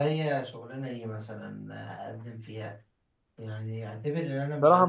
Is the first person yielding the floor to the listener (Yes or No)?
Yes